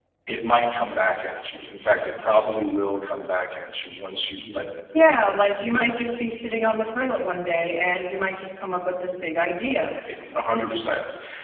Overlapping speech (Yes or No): No